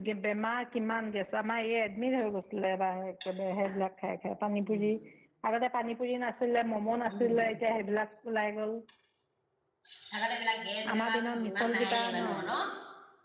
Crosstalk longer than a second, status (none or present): present